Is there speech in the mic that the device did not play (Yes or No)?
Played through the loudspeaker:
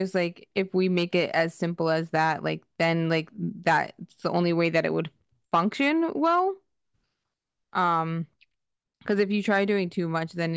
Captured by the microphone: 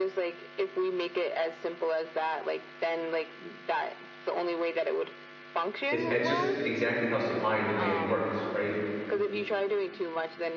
Yes